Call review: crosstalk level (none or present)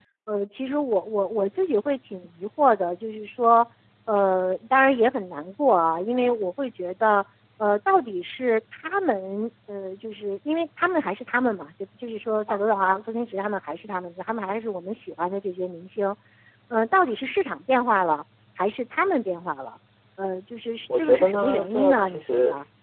present